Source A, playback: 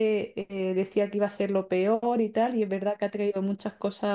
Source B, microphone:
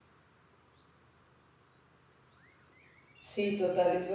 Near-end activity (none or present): present